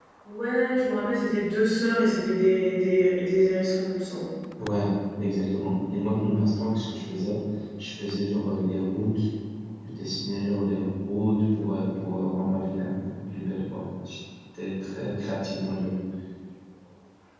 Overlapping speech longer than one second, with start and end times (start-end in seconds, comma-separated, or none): none